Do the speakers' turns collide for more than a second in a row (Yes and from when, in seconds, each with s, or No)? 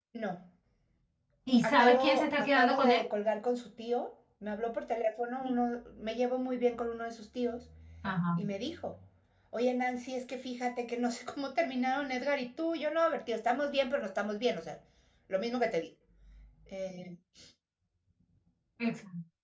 Yes, from 1.6 s